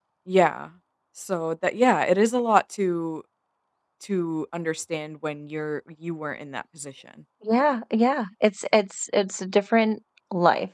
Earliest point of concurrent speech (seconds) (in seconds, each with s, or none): none